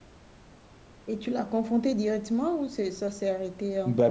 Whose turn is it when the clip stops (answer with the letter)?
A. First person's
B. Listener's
B